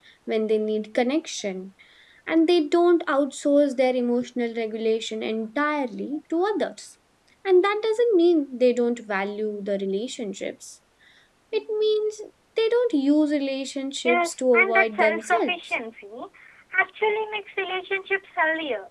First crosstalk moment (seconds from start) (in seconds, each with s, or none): 14.1 s